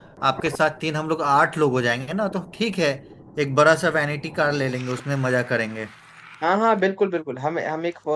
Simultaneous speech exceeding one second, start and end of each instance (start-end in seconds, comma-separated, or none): none